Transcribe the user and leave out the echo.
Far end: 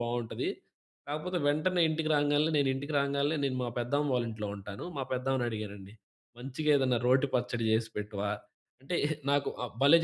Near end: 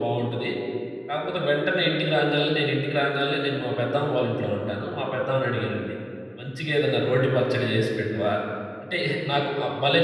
none

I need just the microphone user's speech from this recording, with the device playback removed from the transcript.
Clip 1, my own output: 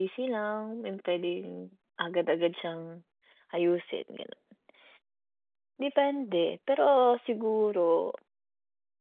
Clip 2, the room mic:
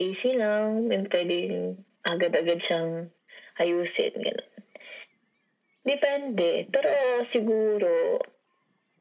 none

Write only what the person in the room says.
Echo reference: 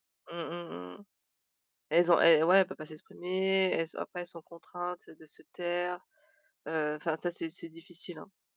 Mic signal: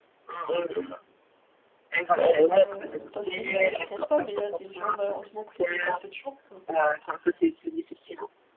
Ouais parce que parce que nous on n'y pense pas, mais il y a des gens malheureusement qui n'ont pas cette chance, hein.

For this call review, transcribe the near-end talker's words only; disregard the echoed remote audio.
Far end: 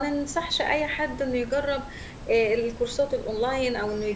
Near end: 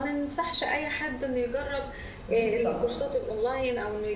بالضبط.

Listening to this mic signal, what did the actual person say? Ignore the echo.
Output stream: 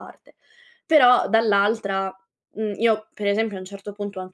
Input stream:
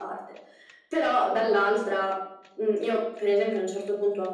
none

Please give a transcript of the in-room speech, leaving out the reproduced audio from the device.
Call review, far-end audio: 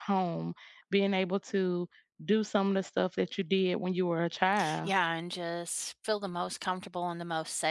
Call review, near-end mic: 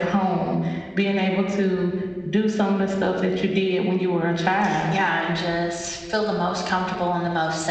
none

